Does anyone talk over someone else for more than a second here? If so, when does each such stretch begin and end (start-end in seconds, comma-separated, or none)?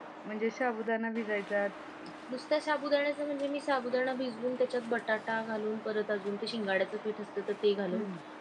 none